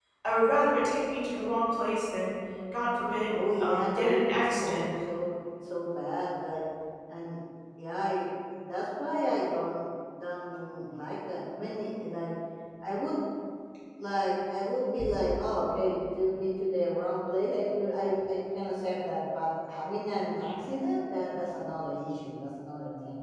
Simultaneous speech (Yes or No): Yes